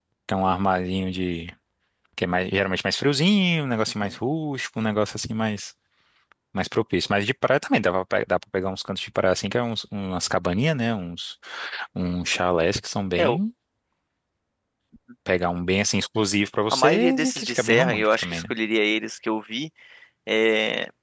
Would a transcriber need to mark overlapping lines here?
Yes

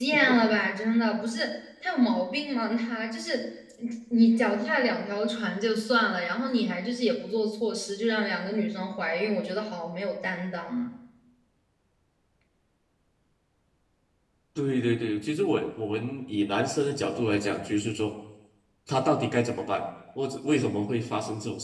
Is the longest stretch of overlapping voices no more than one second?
Yes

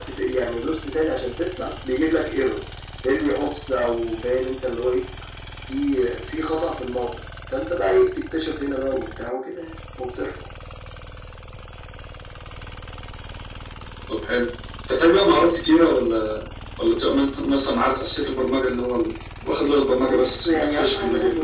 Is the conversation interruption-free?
No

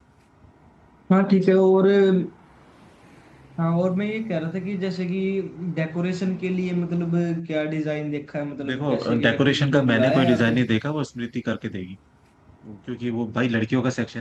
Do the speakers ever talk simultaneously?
Yes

